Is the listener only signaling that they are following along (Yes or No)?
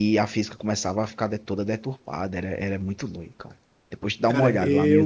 No